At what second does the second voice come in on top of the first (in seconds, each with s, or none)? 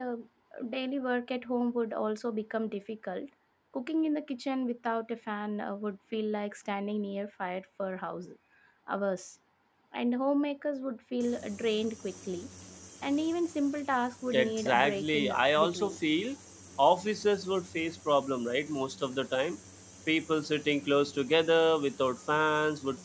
14.3 s